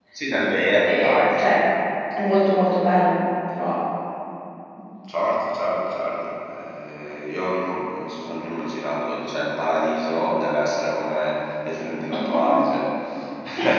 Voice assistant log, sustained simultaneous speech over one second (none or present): none